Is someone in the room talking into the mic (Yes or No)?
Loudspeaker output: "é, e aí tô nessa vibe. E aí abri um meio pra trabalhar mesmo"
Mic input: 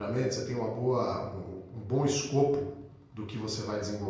Yes